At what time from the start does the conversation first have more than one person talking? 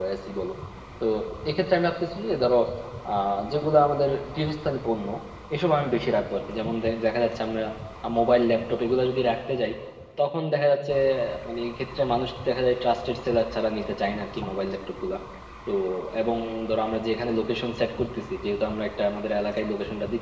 none

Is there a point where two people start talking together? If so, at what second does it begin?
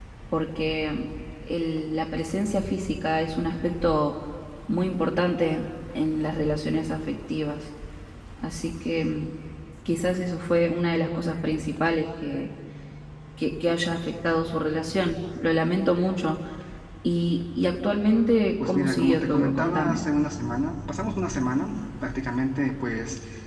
19 s

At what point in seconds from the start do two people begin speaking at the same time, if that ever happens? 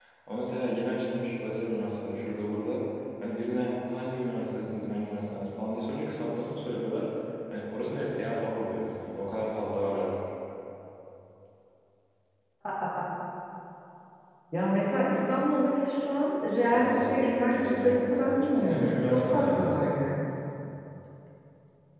17 s

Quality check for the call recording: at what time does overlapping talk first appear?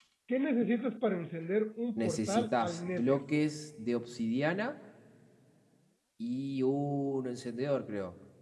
2 s

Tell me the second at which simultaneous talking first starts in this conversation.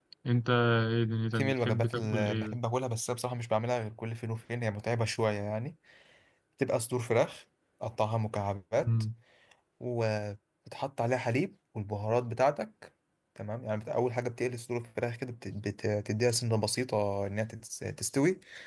1 s

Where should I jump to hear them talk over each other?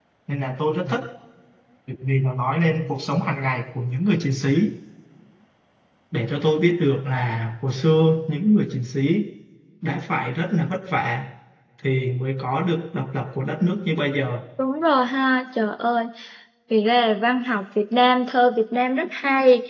none

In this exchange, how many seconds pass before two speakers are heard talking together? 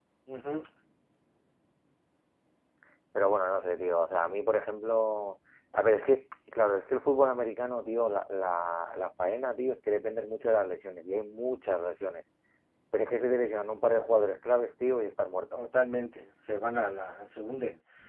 none

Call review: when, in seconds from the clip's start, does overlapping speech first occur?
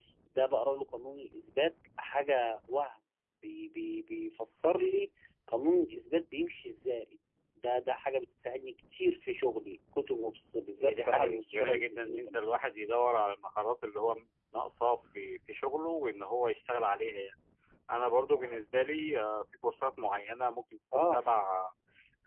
11 s

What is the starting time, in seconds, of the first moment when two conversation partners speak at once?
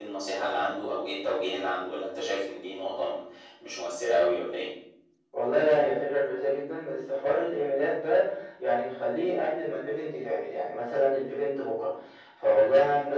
none

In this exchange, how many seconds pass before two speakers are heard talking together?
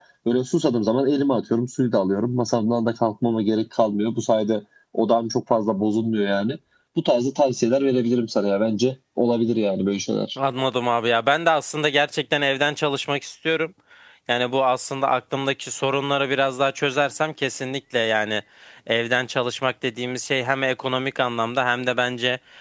none

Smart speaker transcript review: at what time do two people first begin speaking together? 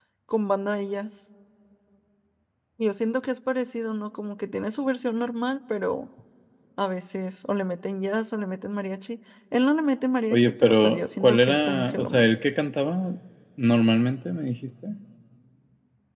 10 s

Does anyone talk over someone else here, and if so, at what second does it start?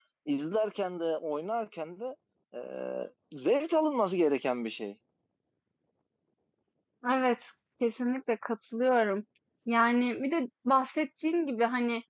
none

